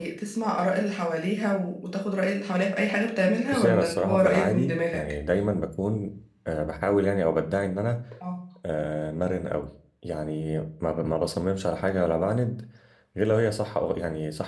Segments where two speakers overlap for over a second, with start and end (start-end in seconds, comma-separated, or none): 3.5-5.0